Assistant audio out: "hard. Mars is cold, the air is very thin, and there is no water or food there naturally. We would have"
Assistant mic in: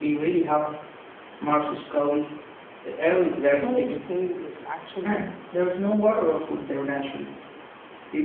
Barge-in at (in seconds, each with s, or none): 3.4 s